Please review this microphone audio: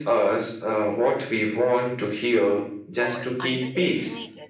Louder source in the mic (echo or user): echo